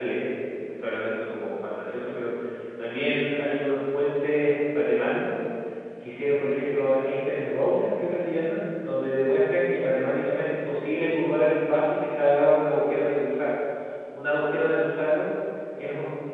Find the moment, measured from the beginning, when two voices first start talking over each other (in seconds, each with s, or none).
none